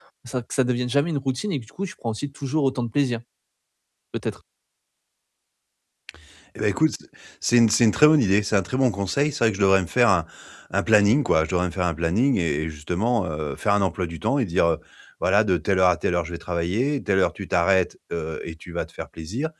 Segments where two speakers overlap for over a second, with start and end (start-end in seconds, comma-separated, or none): none